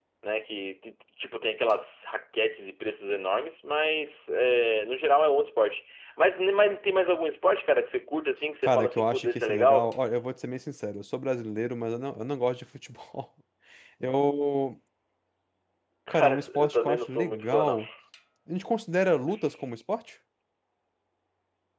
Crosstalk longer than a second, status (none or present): present